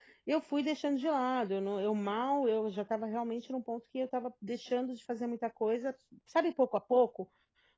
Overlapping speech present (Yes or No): No